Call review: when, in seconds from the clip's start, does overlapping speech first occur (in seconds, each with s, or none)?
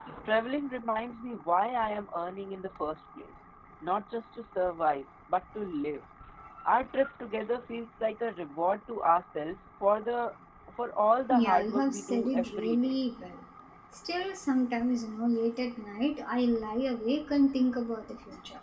11.3 s